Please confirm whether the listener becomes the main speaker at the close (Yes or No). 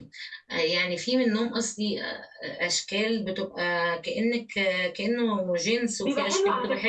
Yes